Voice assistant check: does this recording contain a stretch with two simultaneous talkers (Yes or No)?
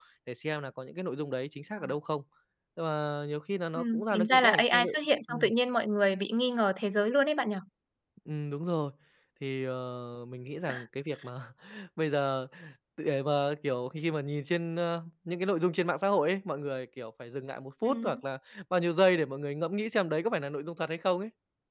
Yes